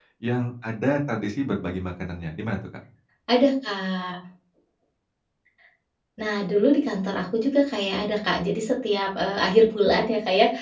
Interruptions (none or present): none